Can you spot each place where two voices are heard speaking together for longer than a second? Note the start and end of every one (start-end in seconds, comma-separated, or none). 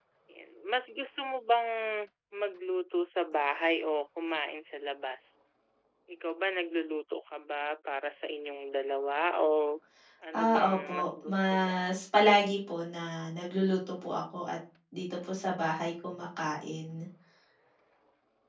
10.3-11.7